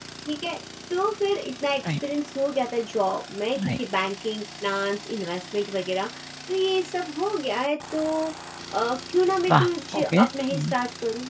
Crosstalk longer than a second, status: present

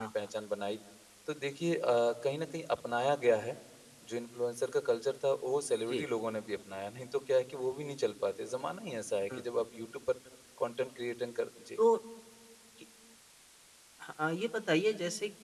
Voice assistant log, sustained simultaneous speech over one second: none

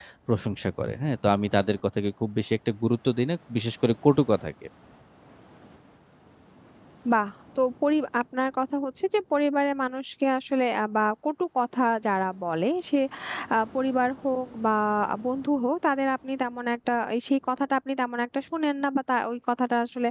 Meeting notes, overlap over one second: none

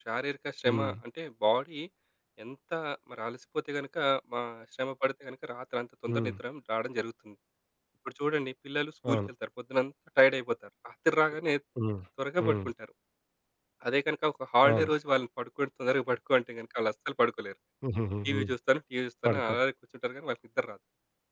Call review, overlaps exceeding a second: none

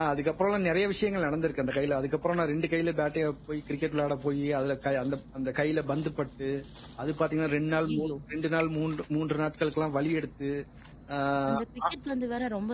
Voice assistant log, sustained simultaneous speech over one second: none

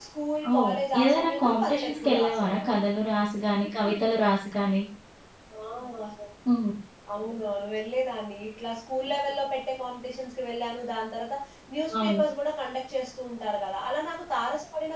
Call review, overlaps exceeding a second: present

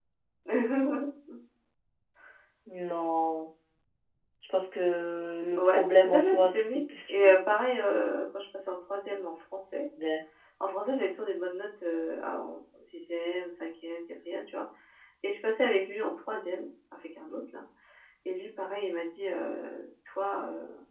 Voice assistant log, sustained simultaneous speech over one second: present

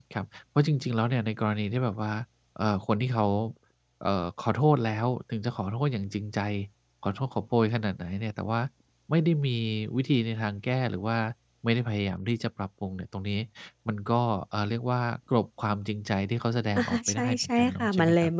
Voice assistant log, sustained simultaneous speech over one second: present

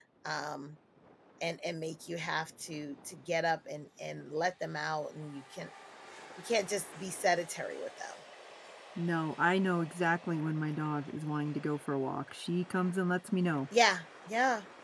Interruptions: none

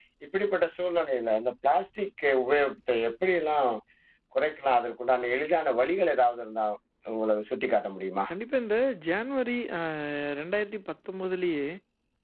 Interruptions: none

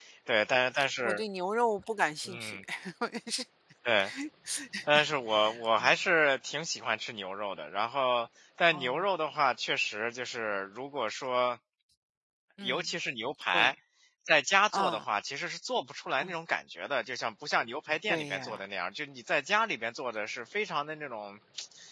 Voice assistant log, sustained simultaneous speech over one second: none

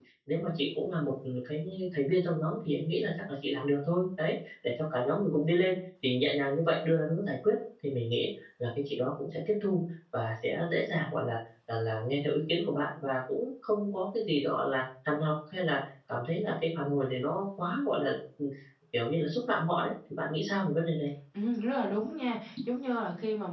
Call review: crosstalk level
none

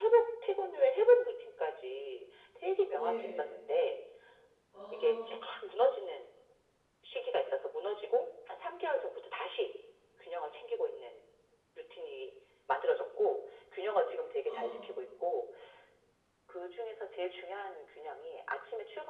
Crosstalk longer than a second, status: none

